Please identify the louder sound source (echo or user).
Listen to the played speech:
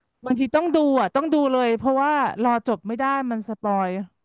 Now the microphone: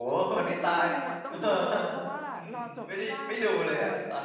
user